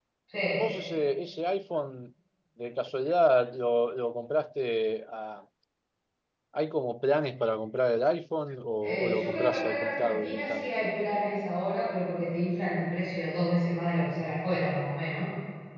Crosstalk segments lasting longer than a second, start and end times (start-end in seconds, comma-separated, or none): 8.8-10.9